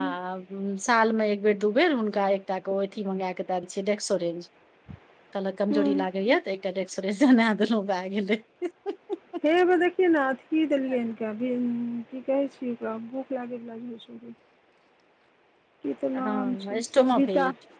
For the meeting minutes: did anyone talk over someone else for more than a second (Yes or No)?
Yes